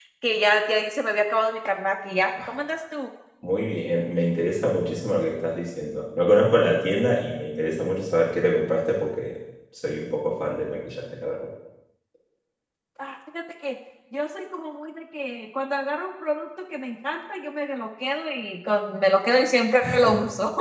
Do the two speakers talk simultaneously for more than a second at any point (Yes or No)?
No